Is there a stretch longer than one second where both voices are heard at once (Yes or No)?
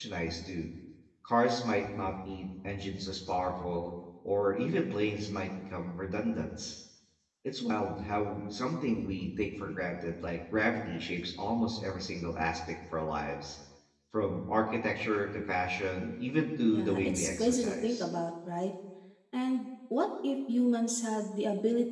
Yes